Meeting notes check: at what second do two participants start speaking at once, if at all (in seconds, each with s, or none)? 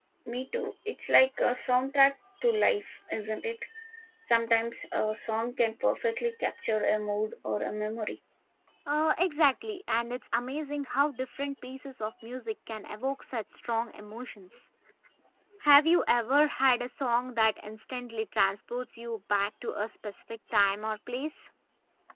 none